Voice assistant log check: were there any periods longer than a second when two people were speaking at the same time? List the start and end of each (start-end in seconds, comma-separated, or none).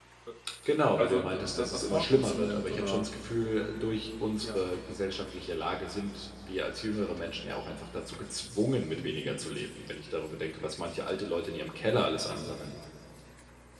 1.0-3.0